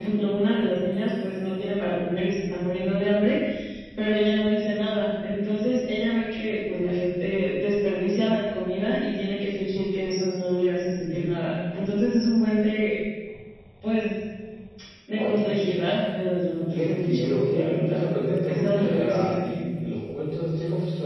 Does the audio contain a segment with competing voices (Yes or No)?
Yes